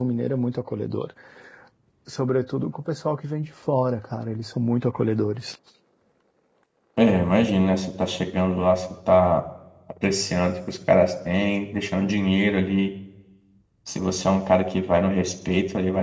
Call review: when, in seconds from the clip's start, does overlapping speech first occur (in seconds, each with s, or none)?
none